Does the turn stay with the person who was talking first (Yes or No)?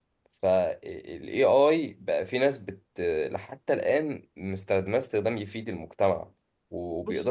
Yes